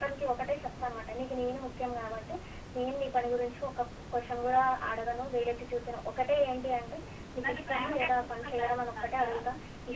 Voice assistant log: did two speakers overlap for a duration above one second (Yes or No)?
Yes